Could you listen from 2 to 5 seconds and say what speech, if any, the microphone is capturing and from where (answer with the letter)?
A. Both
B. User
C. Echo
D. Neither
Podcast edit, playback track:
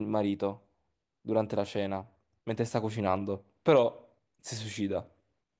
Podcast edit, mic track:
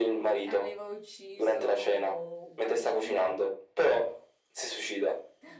A